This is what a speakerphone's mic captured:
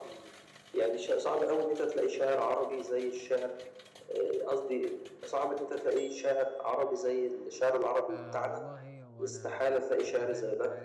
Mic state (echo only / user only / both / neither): both